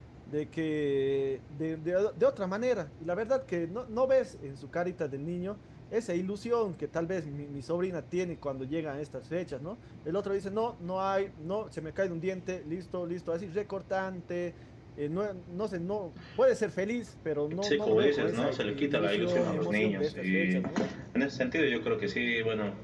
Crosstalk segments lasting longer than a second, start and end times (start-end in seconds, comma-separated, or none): 17.6-20.8